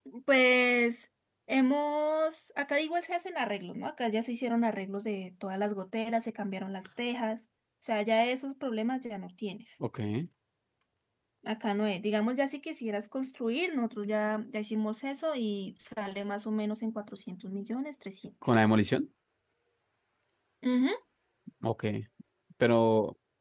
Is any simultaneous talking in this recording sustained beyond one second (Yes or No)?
No